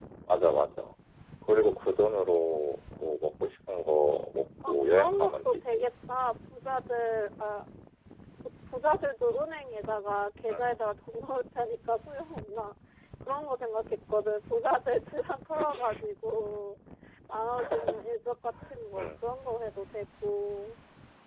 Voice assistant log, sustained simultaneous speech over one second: present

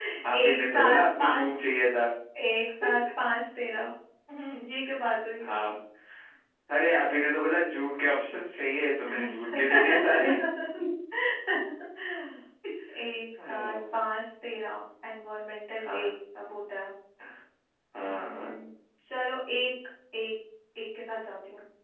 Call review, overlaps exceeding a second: present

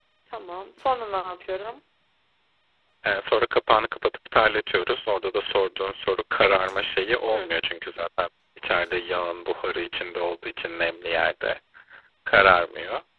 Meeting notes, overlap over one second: none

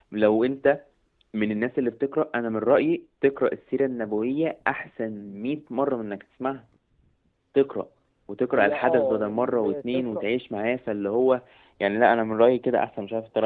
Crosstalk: present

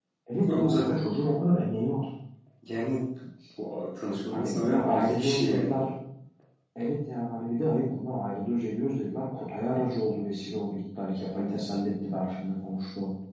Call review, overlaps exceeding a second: present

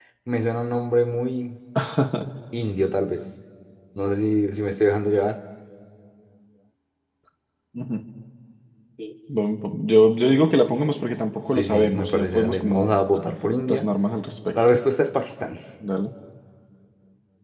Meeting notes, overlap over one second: present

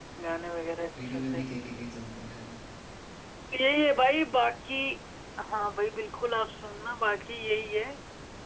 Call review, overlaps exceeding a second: none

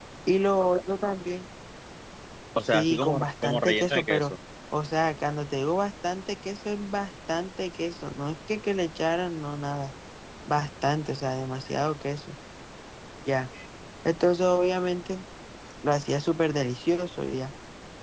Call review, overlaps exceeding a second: present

